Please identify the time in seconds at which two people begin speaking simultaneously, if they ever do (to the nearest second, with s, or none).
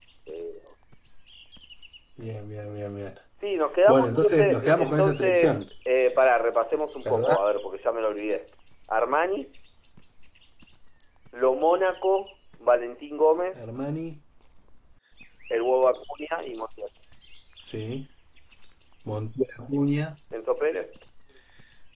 4 s